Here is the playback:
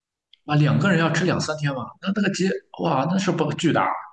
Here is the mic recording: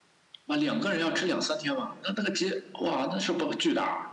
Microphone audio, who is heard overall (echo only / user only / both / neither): echo only